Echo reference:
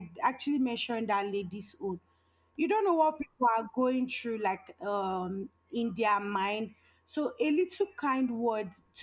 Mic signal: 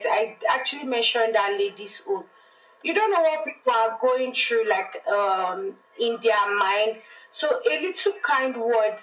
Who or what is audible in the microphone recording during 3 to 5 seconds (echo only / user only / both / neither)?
echo only